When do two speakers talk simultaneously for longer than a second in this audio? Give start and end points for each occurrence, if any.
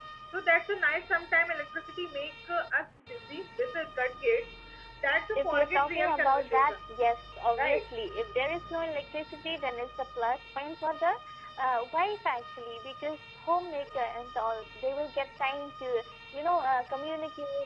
5.4-6.8

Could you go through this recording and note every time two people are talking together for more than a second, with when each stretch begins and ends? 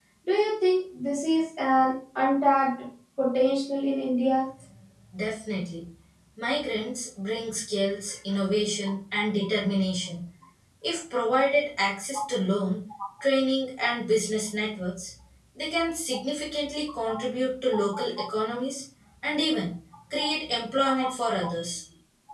none

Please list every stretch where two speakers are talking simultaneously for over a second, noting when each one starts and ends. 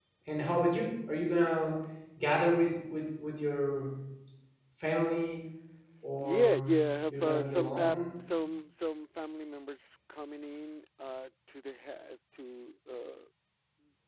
6.2-8.0

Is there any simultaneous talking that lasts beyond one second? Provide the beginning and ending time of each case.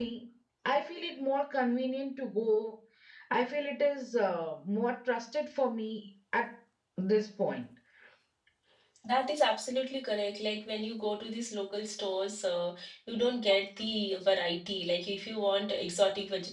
none

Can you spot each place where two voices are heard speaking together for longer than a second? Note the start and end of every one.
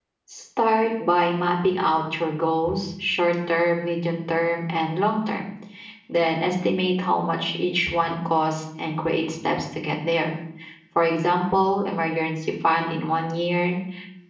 none

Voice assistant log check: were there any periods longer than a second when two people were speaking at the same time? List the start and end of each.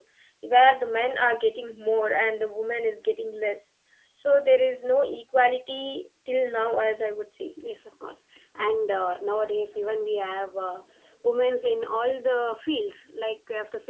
none

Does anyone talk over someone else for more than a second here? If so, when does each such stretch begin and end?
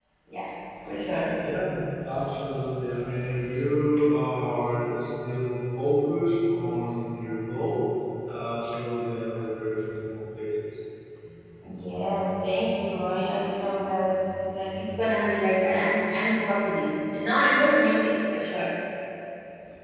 none

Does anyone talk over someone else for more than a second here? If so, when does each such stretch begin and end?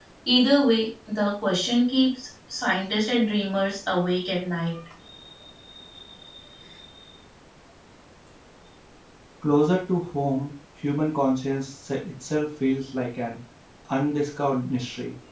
none

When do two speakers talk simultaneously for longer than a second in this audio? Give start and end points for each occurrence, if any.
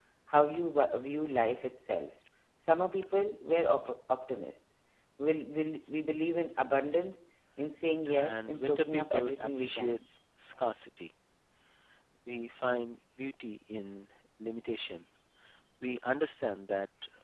8.1-10.0

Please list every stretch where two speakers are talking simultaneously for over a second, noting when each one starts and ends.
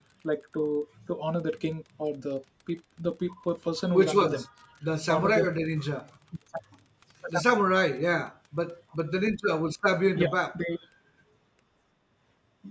none

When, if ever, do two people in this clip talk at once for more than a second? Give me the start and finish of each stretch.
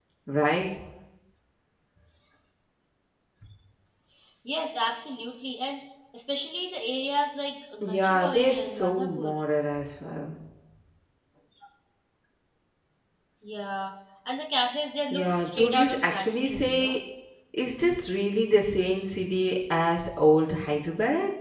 7.8-9.3, 15.1-17.0

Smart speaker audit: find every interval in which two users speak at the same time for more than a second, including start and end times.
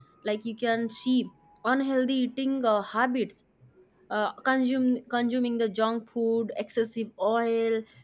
none

